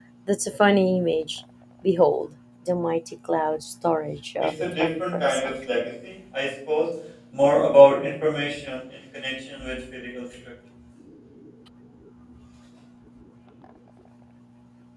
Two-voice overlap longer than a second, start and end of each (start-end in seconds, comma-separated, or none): 4.4-5.7